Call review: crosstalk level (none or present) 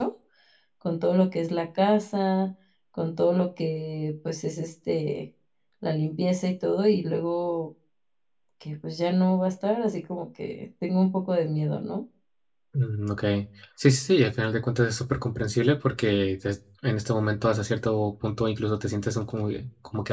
none